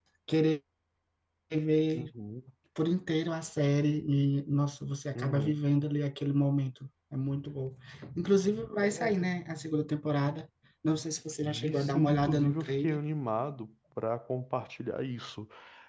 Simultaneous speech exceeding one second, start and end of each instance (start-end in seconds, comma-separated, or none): 11.4-13.0